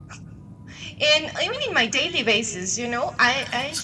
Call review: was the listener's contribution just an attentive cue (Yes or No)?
Yes